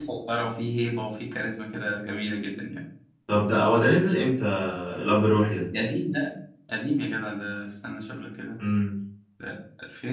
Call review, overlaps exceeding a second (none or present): none